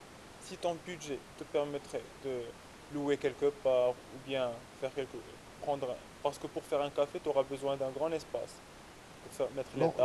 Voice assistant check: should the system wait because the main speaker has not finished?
No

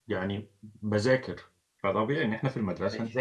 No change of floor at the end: Yes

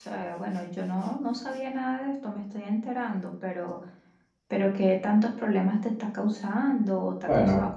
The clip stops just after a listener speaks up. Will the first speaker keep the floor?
No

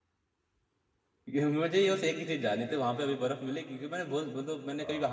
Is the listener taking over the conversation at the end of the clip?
No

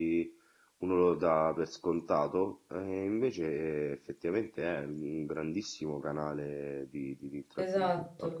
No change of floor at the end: No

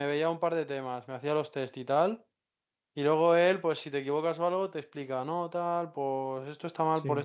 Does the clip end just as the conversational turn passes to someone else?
No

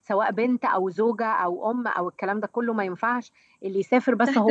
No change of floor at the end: No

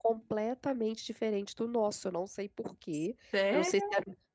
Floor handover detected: No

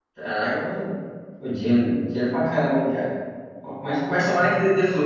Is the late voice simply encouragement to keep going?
Yes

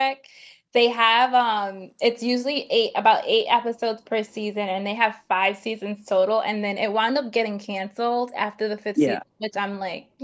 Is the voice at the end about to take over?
No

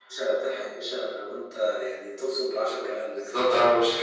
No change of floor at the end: No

